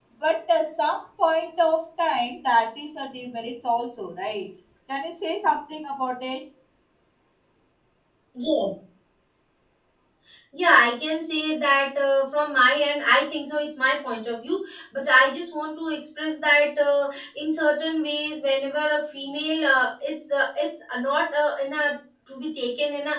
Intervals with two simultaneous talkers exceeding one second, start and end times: none

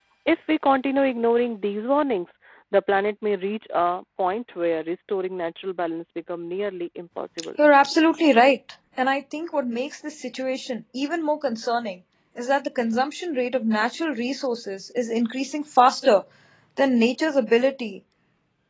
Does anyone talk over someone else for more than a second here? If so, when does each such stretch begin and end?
none

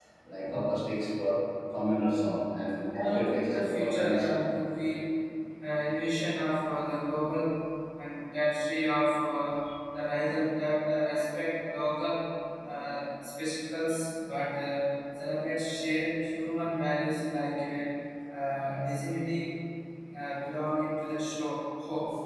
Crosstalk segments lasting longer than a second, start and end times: 3.0-4.4

